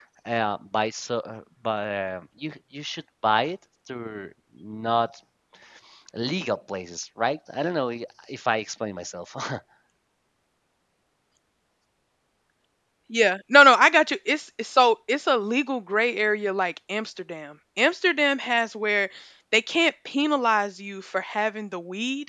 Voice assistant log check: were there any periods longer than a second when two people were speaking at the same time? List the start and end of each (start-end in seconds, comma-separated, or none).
none